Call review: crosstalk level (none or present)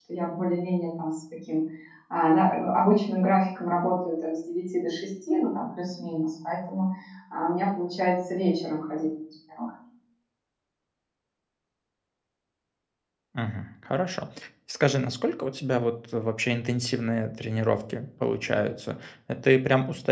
none